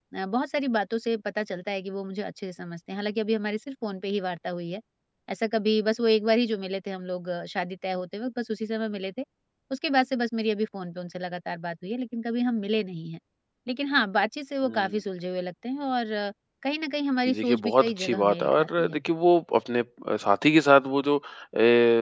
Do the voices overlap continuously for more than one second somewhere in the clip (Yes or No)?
Yes